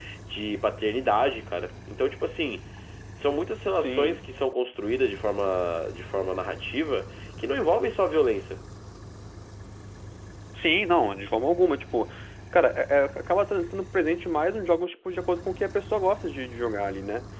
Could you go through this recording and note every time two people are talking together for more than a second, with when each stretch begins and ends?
none

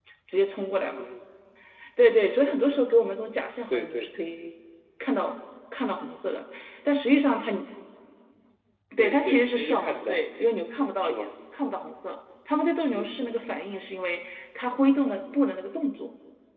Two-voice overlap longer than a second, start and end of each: 9.0-10.2

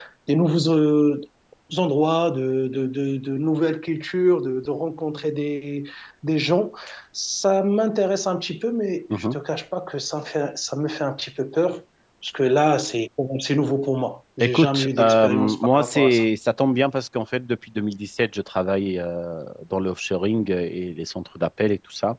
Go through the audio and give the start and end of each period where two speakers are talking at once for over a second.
14.4-16.2

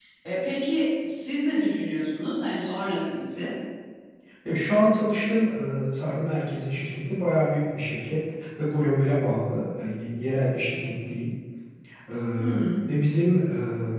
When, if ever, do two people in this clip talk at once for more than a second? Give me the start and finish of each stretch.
none

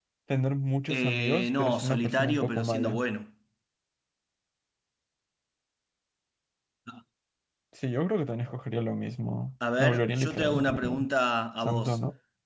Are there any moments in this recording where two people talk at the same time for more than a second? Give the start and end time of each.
0.9-3.0, 9.8-11.1

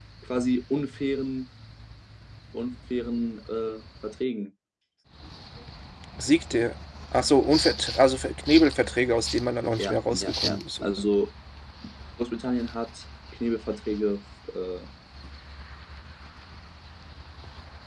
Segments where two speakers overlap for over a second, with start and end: 9.8-11.0

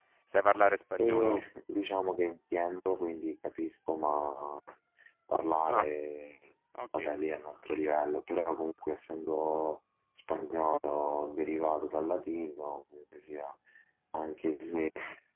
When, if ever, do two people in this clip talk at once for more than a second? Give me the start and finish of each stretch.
none

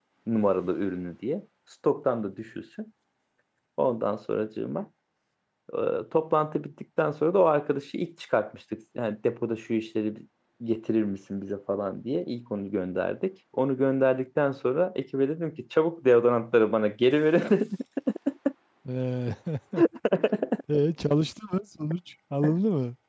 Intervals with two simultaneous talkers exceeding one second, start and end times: none

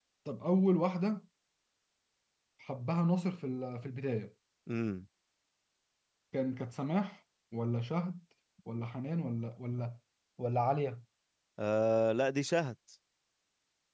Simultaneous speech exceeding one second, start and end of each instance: none

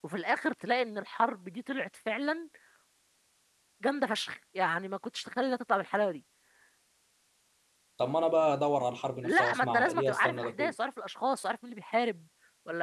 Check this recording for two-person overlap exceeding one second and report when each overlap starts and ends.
9.2-10.7

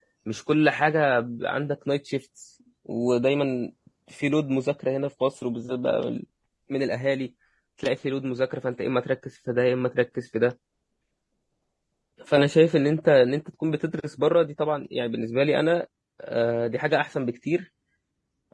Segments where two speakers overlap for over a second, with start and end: none

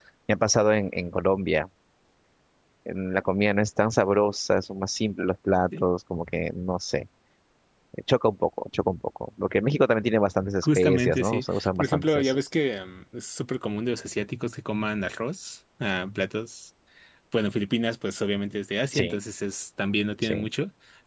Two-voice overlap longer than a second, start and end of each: 10.6-12.5

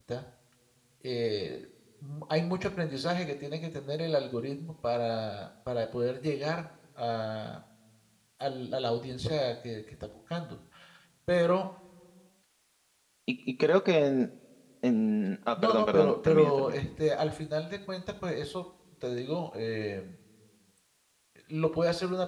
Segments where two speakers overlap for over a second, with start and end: 15.6-16.8

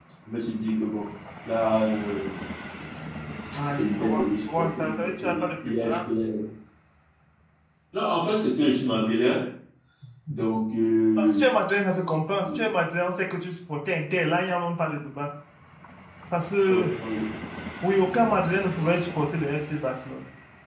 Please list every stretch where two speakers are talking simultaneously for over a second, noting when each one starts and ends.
3.7-6.2

